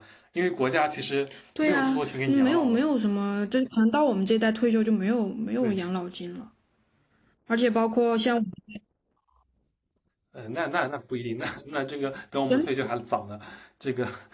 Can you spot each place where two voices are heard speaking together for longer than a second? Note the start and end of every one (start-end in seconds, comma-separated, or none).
1.6-2.8